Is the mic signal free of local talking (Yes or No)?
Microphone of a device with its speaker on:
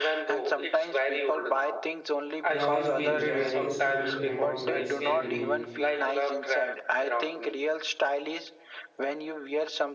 No